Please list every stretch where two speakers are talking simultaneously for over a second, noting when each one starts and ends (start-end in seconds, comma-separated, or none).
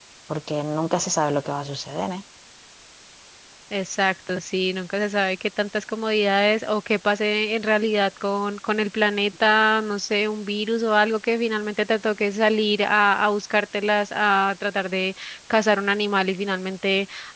none